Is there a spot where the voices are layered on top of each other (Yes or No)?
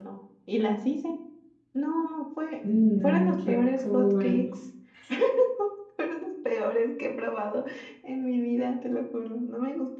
Yes